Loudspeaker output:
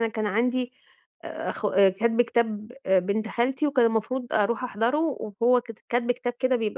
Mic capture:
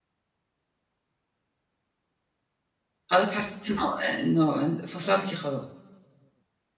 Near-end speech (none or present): present